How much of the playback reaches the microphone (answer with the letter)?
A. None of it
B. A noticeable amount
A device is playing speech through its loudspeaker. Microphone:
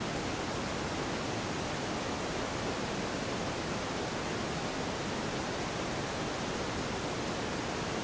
A